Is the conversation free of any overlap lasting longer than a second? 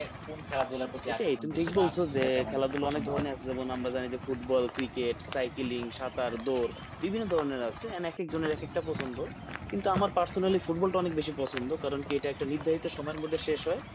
No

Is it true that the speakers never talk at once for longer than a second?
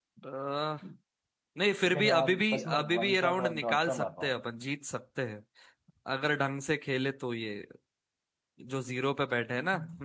No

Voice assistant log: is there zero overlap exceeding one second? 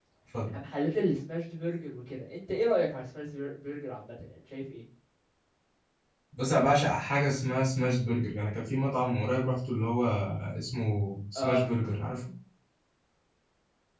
Yes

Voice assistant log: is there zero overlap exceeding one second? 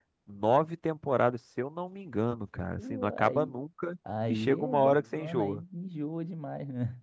No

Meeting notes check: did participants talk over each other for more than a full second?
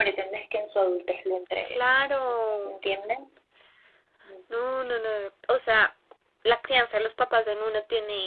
No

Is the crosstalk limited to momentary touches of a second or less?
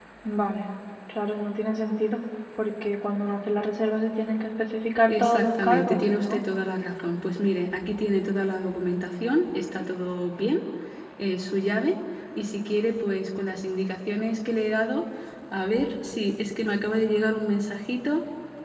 No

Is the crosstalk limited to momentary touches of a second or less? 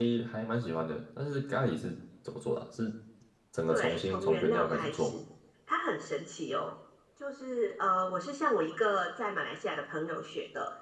No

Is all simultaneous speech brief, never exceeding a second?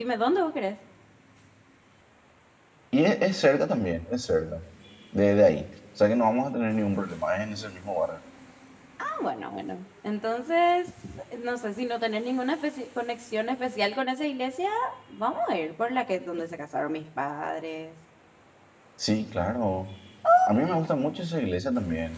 Yes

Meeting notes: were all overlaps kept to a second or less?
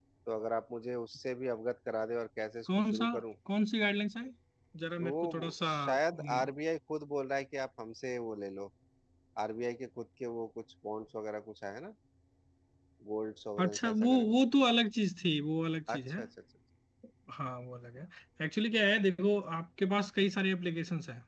No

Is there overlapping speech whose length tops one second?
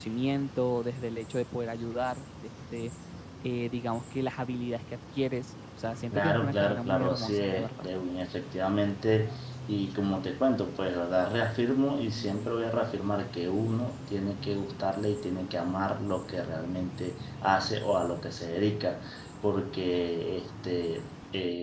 Yes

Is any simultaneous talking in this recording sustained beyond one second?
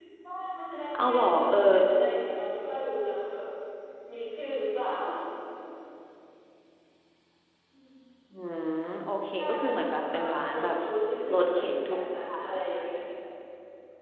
Yes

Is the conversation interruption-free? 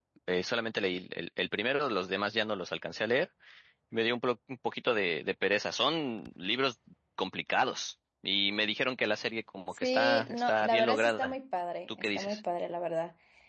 No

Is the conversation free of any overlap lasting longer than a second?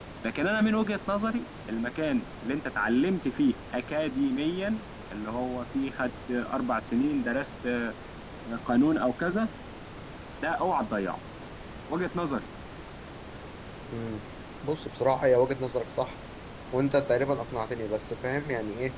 Yes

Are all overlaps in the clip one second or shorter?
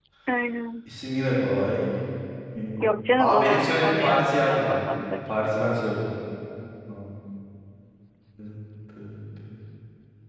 No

